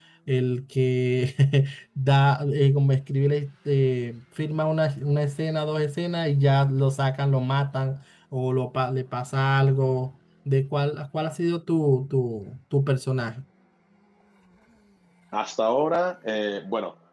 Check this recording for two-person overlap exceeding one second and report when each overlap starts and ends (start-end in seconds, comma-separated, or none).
none